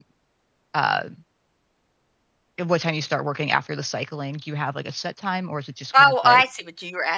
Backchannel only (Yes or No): No